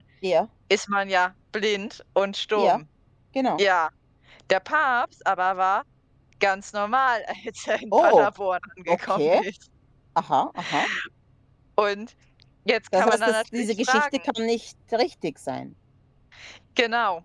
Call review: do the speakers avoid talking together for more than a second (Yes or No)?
No